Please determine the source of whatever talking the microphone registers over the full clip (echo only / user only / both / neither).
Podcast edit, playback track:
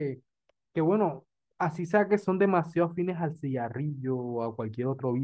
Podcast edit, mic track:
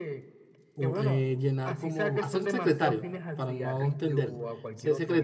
both